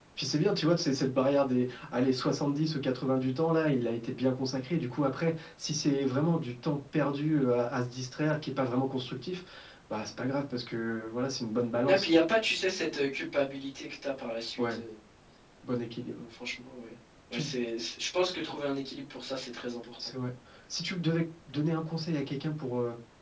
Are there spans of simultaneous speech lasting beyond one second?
No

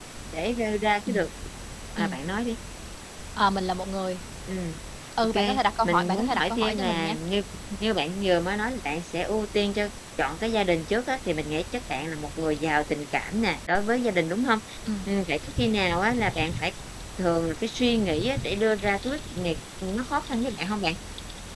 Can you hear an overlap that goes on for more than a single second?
Yes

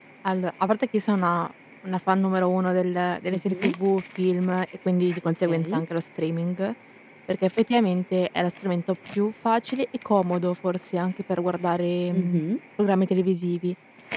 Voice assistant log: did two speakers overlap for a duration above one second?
No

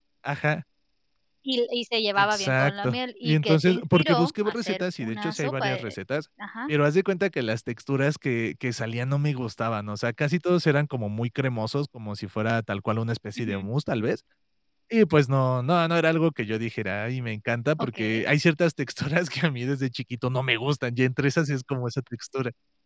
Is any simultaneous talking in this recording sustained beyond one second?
Yes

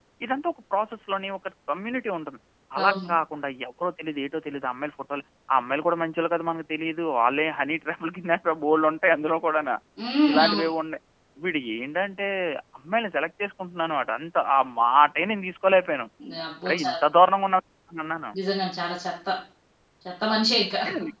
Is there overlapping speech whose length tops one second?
No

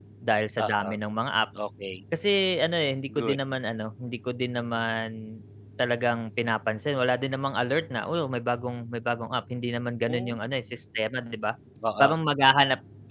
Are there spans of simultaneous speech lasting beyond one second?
No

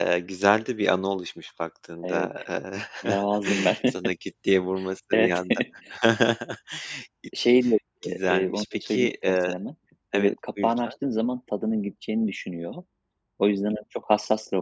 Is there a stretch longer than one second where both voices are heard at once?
Yes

